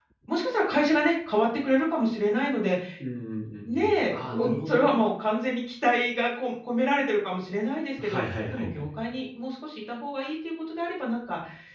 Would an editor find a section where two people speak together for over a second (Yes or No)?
Yes